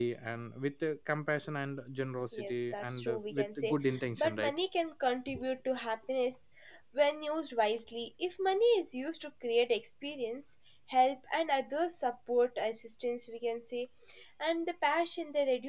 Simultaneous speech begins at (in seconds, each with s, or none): 2.3 s